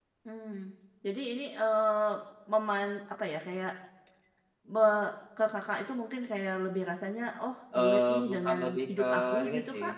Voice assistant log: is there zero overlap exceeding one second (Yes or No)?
No